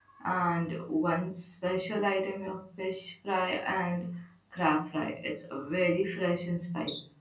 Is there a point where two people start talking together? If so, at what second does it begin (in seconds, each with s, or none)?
none